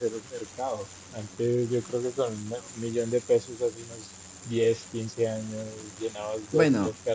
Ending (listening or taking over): listening